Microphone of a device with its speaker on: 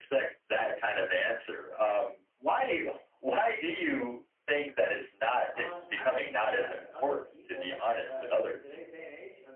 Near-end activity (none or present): present